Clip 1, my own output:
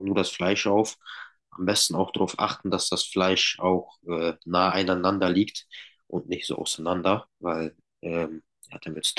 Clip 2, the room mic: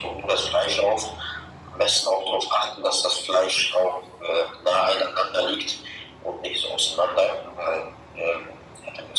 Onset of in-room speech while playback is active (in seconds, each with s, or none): none